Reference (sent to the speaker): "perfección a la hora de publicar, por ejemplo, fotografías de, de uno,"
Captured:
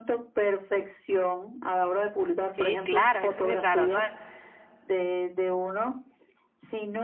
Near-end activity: present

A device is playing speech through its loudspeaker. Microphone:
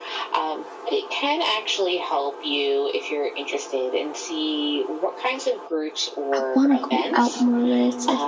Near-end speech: present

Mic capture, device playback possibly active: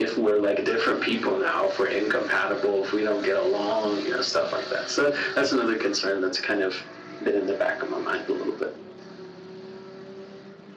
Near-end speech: none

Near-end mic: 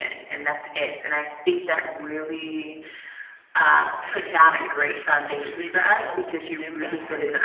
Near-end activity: present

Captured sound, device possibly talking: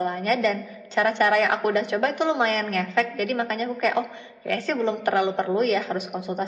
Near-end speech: none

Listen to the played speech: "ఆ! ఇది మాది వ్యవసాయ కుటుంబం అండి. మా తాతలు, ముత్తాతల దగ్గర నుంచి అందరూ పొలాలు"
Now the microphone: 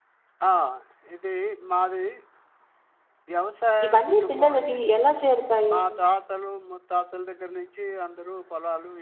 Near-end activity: present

